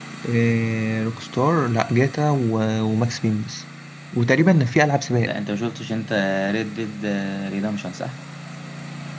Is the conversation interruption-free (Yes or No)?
Yes